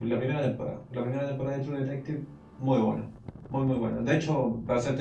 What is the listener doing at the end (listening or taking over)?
listening